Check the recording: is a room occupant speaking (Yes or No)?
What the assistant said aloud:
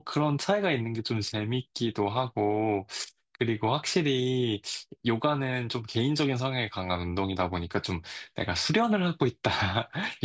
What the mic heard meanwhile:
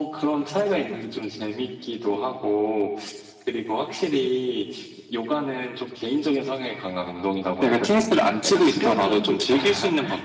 Yes